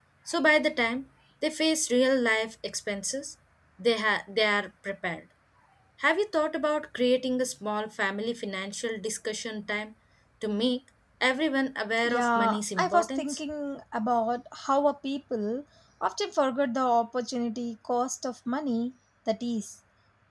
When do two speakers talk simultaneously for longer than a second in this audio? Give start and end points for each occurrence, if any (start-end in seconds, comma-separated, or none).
12.1-13.4